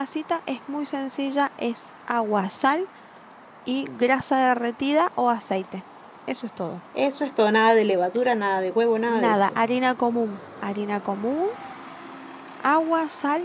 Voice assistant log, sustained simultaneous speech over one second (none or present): none